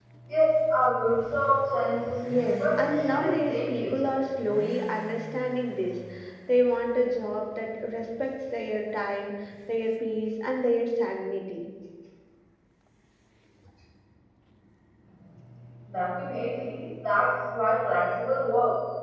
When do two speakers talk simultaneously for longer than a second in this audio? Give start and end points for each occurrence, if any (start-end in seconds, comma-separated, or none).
2.3-4.0